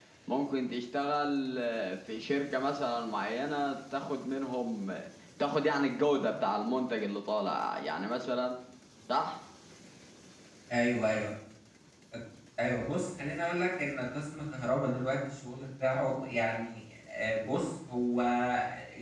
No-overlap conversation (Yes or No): Yes